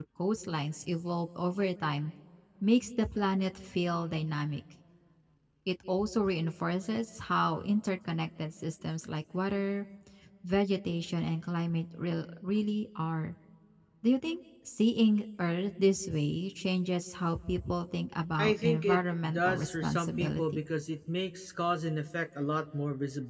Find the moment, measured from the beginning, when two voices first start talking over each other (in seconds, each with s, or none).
18.4 s